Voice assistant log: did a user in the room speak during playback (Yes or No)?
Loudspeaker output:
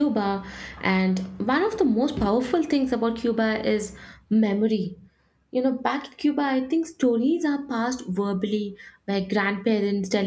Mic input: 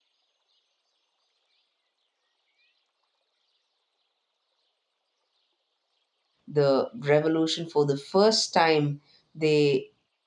Yes